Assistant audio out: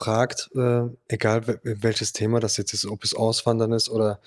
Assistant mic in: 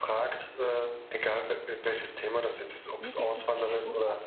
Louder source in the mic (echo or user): echo